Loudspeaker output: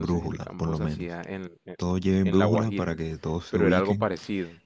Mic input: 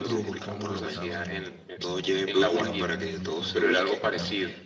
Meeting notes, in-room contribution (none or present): present